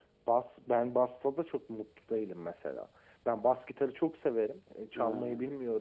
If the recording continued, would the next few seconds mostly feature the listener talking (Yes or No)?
No